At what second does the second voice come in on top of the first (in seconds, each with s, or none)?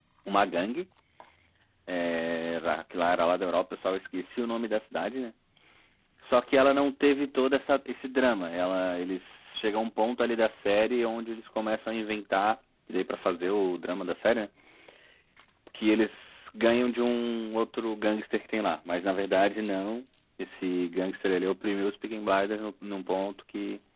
none